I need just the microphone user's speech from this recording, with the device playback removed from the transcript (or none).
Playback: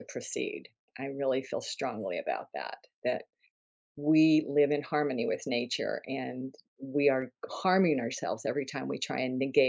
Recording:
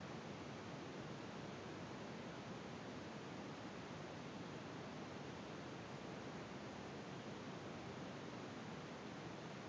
none